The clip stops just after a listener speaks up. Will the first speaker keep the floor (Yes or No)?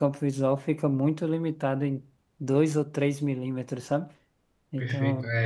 No